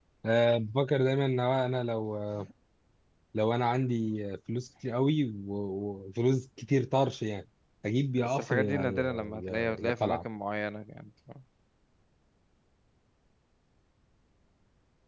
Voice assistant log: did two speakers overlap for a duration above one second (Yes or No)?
Yes